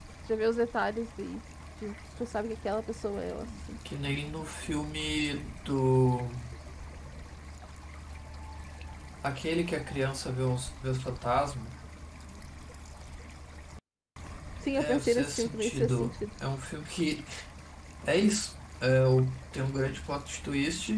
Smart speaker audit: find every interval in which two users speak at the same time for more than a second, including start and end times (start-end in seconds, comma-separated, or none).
14.8-16.2